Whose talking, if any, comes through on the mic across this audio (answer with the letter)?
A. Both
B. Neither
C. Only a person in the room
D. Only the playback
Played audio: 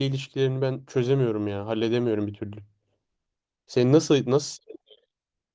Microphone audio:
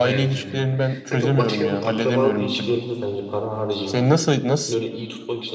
A